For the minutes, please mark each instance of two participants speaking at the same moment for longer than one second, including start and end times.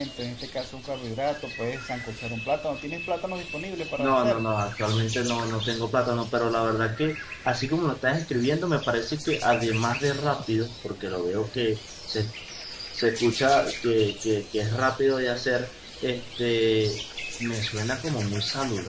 none

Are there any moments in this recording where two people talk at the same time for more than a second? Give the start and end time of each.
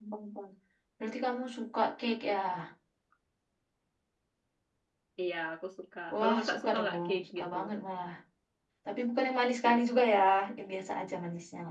6.1-7.5

